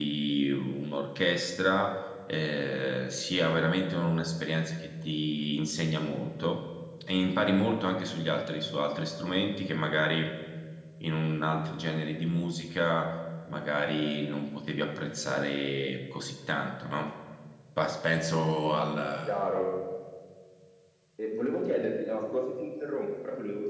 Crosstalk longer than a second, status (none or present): none